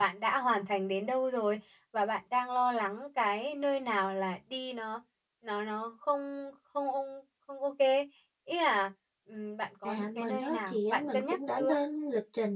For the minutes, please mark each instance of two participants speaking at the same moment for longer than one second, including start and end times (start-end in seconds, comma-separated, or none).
9.8-11.8